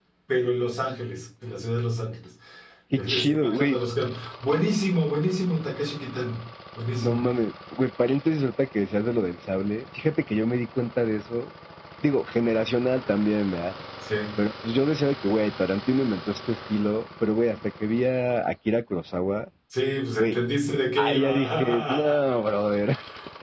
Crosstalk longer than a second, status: present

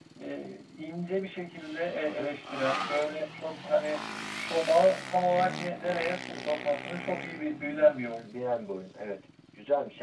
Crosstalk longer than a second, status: none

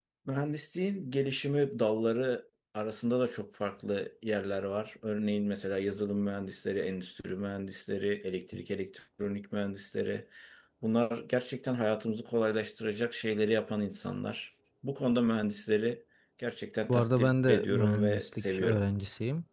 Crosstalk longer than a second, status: present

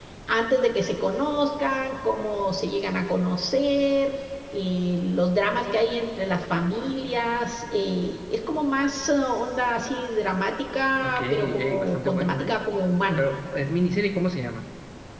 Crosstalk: present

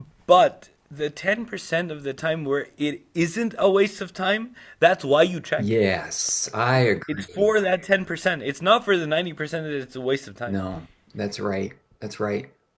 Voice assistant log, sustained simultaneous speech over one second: none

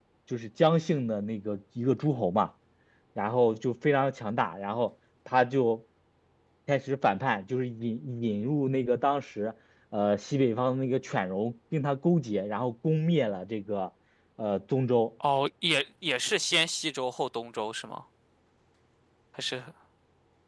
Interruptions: none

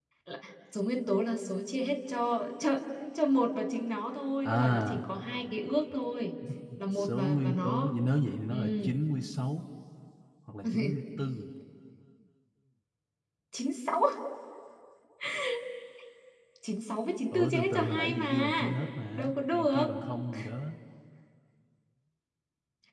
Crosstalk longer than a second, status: present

